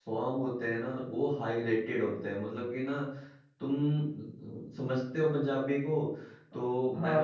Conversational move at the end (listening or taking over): listening